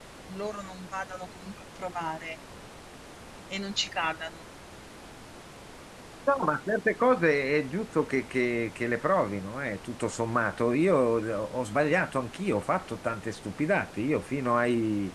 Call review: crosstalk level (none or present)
none